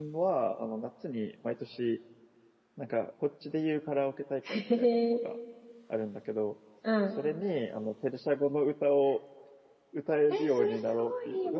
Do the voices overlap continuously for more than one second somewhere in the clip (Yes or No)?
Yes